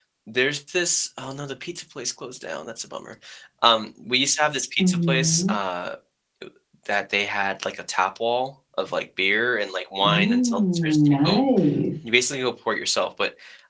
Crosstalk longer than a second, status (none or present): present